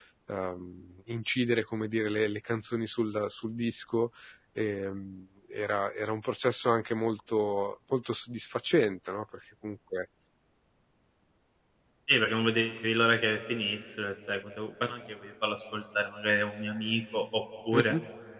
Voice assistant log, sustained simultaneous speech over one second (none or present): none